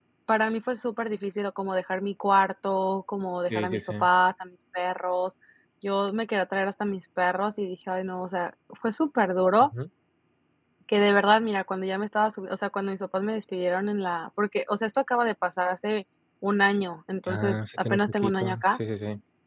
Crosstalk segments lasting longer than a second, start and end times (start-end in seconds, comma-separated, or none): 17.3-18.8